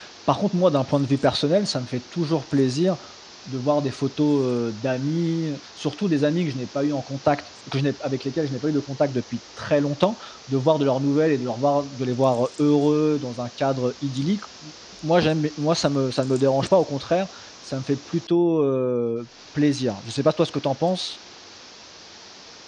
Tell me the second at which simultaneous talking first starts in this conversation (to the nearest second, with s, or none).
none